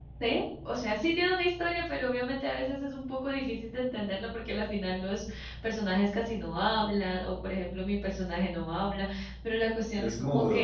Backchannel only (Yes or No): Yes